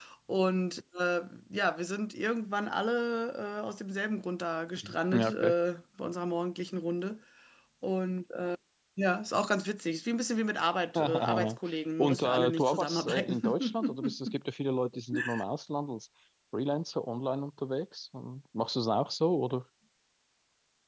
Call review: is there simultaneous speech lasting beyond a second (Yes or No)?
Yes